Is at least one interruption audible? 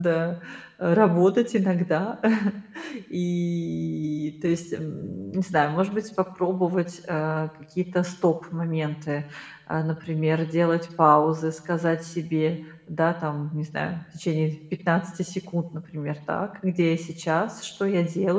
No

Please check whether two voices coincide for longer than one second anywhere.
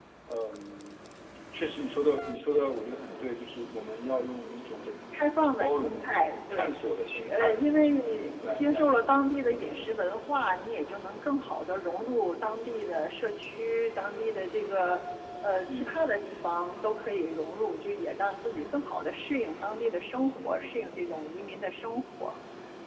No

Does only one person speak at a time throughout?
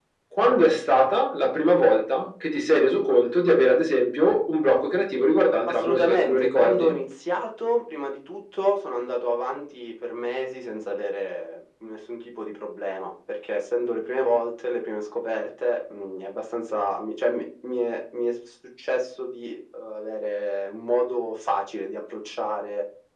No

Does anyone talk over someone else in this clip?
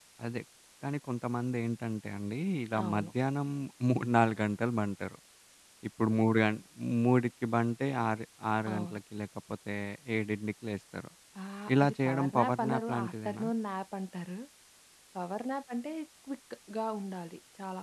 Yes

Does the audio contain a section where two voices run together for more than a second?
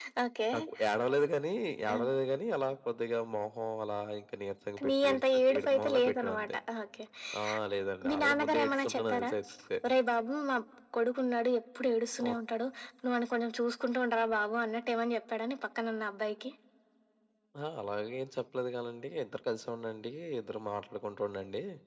Yes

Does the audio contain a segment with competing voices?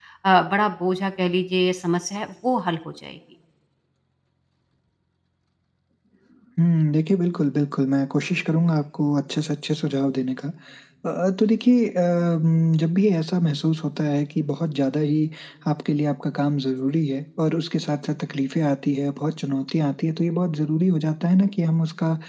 No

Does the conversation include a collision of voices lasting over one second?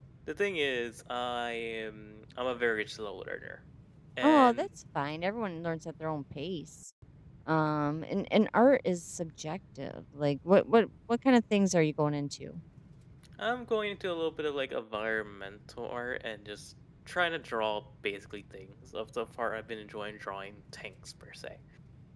No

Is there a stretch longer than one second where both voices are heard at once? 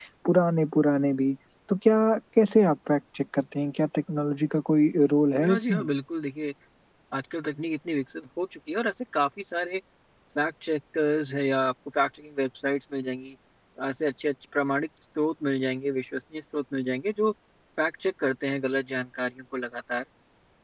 No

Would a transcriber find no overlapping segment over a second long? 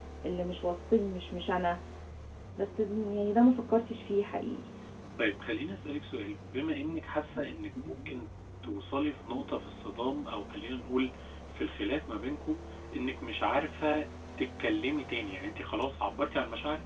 Yes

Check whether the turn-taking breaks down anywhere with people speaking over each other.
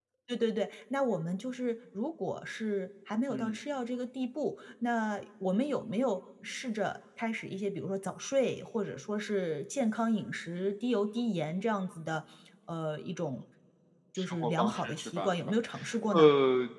Yes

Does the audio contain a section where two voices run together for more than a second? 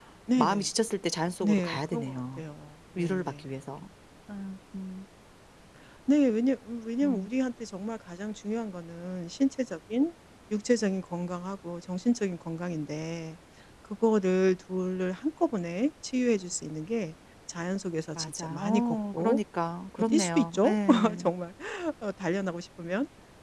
Yes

